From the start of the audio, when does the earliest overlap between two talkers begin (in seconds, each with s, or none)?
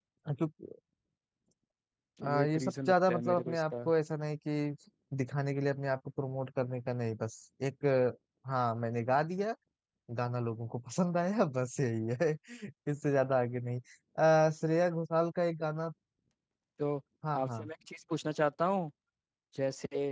2.2 s